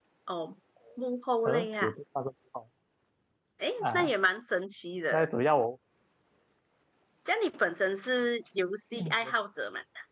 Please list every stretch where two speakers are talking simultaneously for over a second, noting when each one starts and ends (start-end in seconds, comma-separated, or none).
none